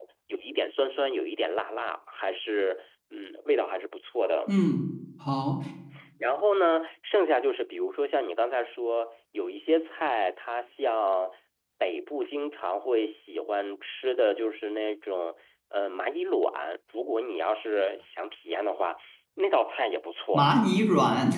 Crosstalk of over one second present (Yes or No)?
No